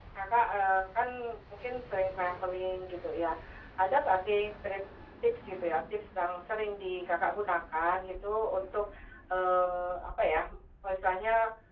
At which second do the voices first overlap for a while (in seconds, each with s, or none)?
none